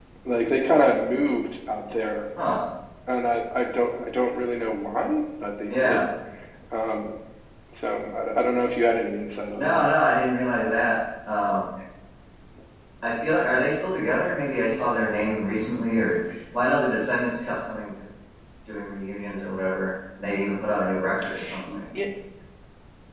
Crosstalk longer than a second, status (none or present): none